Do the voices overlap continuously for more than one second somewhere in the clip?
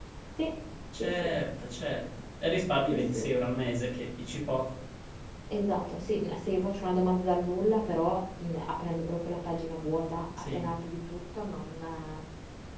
No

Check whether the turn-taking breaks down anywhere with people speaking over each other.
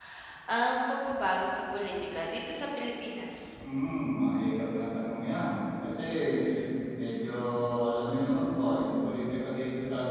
No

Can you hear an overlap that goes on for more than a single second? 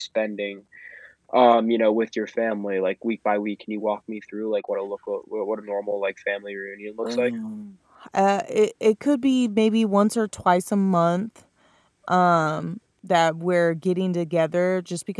No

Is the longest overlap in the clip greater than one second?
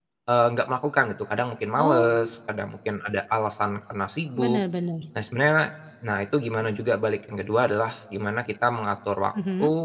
No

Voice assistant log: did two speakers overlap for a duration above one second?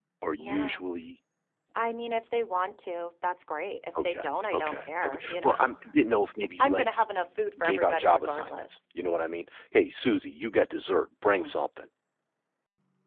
Yes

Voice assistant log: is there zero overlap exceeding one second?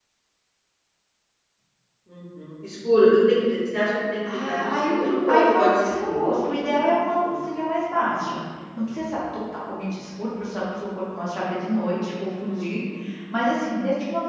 No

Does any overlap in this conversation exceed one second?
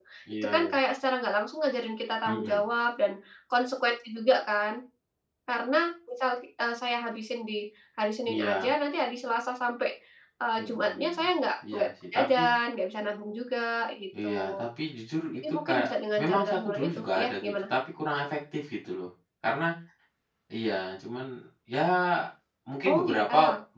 Yes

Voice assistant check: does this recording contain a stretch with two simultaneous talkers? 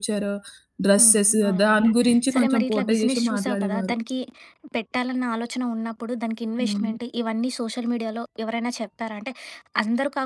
Yes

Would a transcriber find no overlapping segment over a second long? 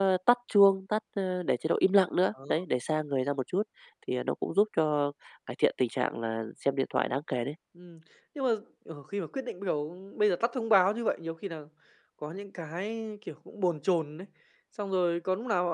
Yes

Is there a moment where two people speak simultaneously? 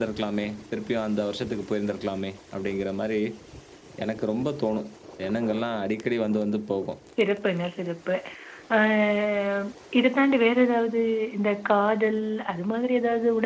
No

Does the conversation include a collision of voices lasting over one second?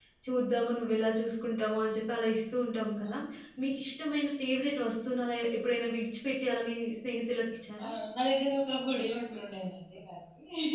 No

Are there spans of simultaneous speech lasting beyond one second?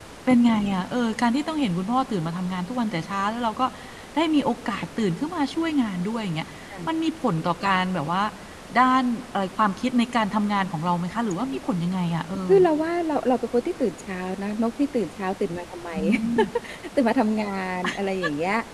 No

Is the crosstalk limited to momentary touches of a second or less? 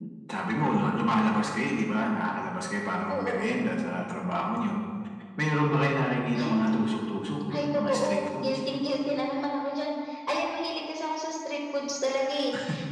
No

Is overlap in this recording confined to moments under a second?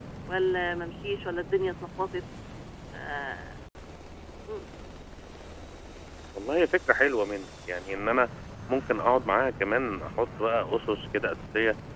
Yes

